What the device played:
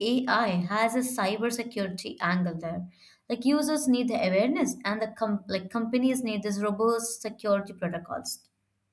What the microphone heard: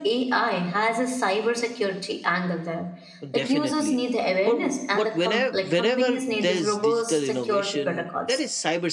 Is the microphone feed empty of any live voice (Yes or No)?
No